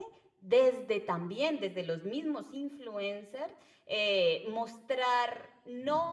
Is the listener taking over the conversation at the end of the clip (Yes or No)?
No